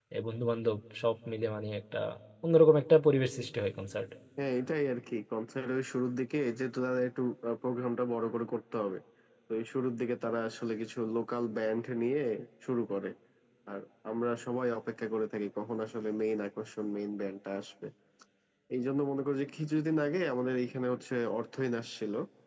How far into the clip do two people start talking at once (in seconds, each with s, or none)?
none